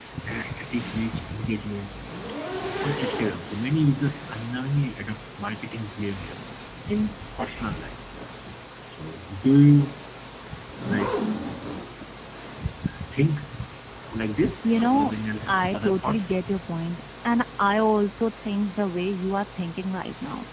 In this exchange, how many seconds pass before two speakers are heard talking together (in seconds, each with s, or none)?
14.6 s